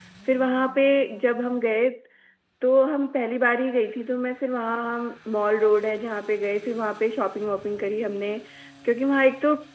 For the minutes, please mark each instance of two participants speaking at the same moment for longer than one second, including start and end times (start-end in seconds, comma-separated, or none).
none